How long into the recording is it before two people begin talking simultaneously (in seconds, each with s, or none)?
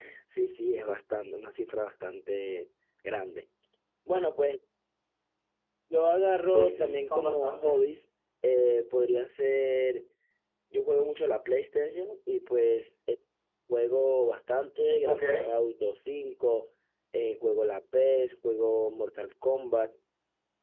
6.4 s